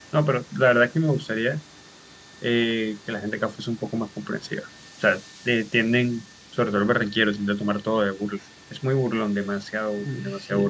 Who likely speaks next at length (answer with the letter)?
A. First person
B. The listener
B